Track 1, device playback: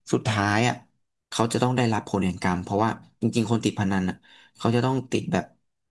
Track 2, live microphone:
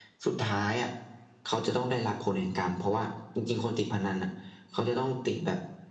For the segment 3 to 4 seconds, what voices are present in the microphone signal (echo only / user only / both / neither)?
echo only